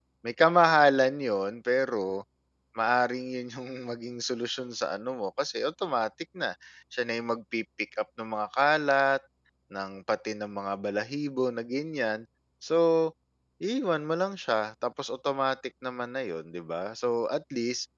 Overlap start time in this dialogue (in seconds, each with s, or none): none